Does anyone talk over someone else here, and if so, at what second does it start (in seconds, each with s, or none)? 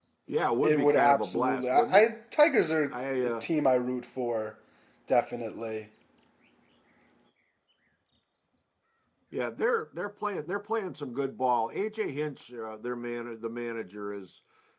0.6 s